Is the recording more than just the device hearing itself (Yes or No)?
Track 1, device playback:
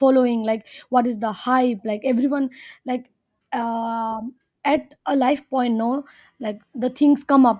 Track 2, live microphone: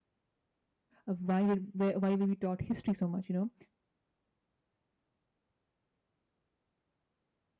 Yes